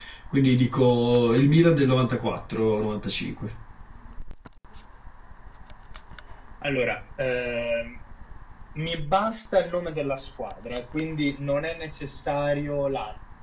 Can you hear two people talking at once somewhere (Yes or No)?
No